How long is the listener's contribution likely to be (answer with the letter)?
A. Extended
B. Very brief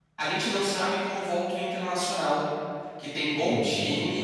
B